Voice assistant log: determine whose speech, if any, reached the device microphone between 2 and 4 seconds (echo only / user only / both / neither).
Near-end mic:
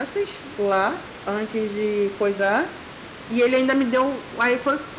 user only